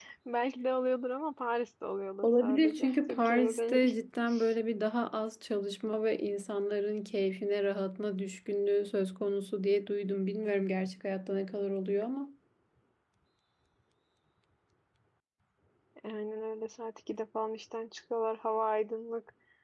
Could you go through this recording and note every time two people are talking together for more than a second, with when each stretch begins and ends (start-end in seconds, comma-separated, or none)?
2.2-3.9